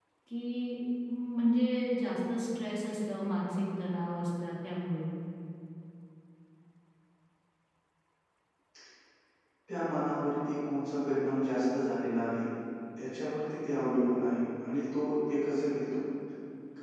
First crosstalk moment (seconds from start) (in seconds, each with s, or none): none